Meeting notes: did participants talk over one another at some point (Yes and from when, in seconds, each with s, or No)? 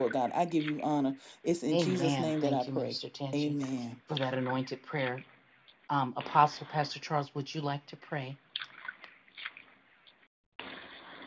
Yes, from 1.7 s